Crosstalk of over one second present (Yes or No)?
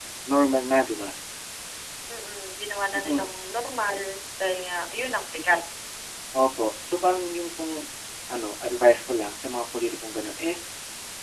No